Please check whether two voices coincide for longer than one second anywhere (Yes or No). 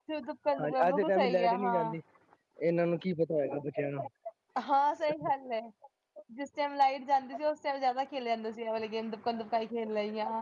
Yes